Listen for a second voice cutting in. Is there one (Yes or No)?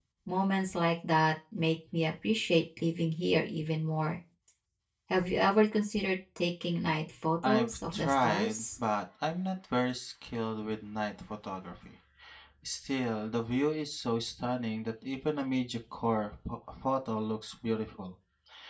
Yes